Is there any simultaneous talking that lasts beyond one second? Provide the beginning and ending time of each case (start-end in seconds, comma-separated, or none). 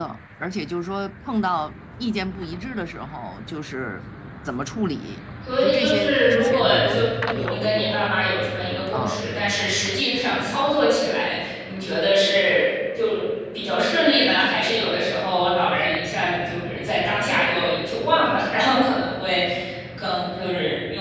5.6-8.0